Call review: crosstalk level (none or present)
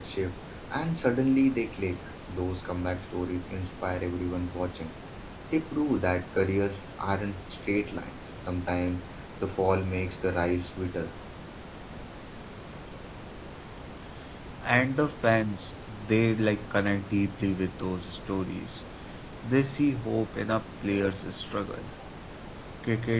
none